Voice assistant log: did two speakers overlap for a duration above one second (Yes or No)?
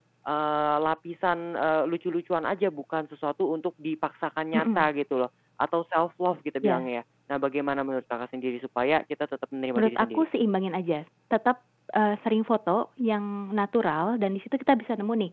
No